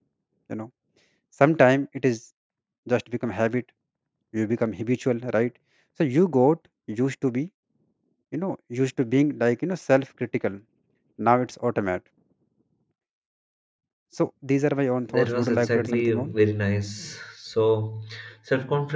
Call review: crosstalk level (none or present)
present